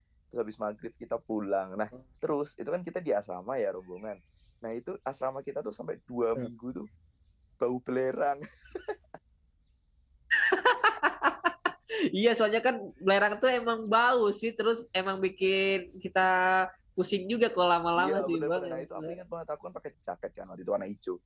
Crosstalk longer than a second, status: present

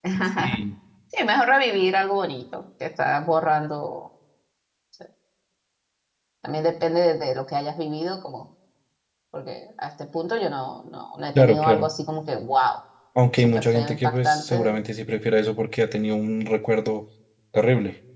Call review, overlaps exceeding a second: present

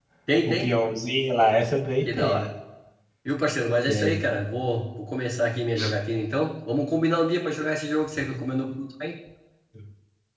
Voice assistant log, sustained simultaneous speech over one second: none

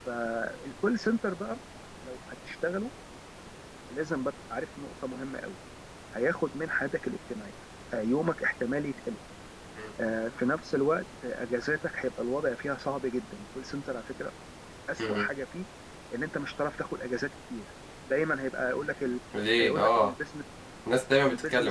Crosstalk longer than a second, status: none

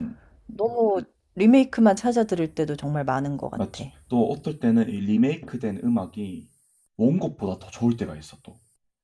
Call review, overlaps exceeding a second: none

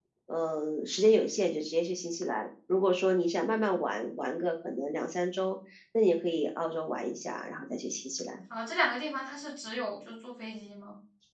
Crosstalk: none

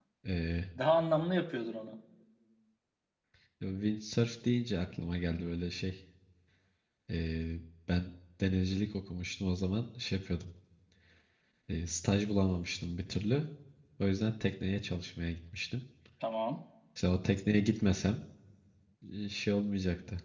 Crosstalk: none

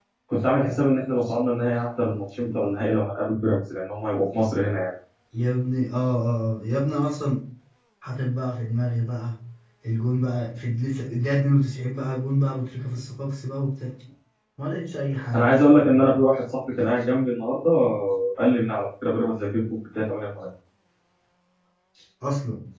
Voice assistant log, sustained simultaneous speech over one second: none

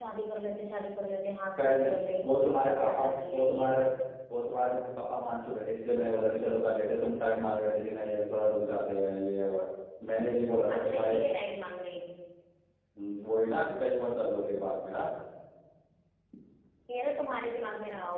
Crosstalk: present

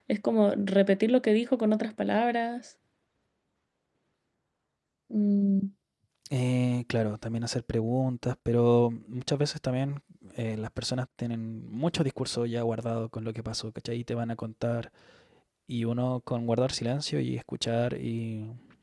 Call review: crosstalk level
none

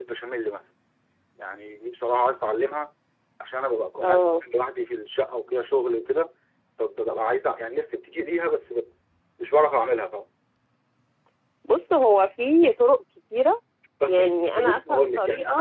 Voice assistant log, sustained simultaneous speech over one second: present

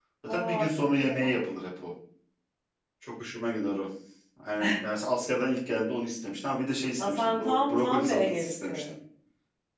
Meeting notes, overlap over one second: present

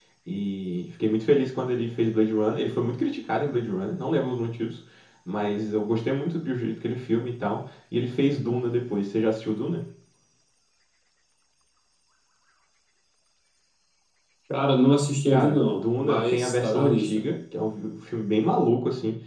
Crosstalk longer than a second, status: present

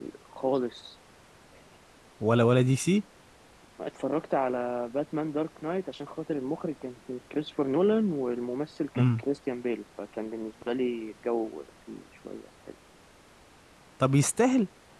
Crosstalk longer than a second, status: none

